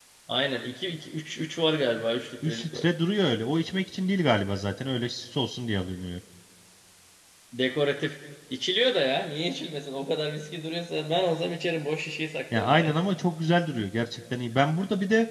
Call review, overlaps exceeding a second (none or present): none